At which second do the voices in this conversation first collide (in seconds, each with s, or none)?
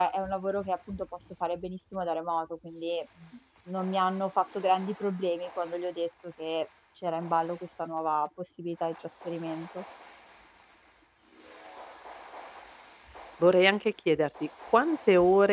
none